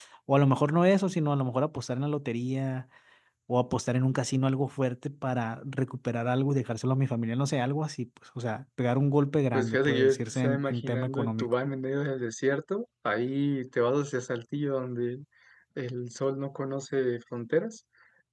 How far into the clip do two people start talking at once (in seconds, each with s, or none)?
9.5 s